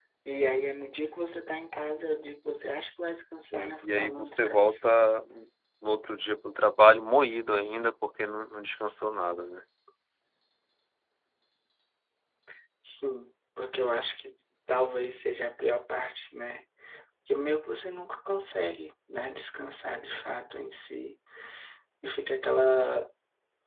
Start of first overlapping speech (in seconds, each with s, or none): 3.5 s